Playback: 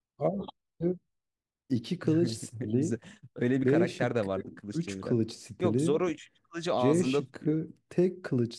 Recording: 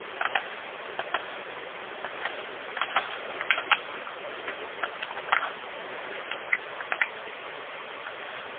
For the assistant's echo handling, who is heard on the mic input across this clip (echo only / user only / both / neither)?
neither